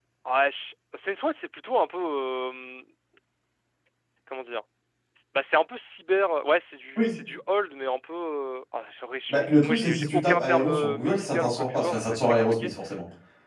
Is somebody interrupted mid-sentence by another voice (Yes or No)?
Yes